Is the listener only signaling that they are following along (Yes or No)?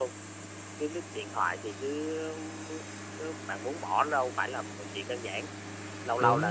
Yes